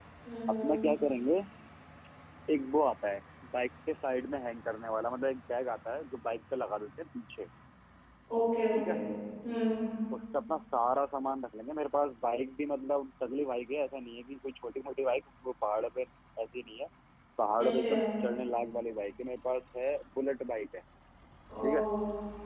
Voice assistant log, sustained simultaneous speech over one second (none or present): none